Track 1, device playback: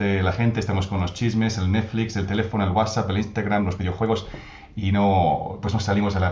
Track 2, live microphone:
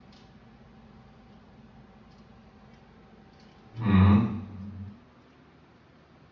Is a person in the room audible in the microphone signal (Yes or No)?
Yes